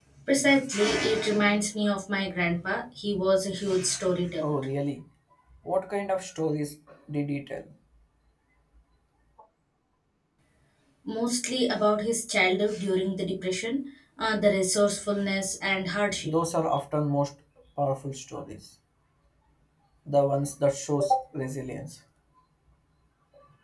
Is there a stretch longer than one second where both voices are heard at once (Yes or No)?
No